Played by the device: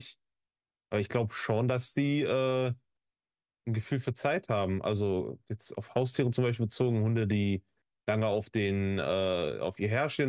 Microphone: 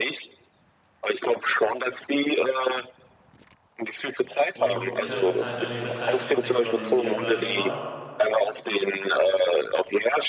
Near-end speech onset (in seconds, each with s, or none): 4.5 s